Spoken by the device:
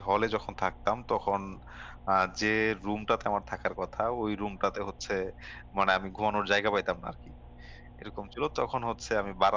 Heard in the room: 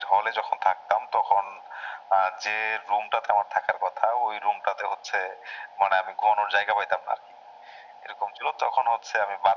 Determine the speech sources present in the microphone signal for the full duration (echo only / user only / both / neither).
echo only